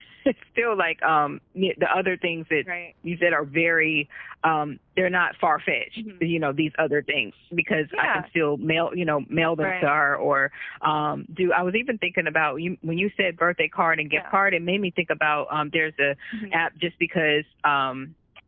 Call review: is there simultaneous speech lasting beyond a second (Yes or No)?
No